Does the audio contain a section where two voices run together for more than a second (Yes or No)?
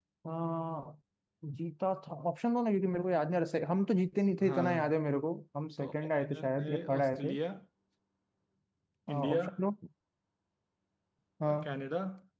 Yes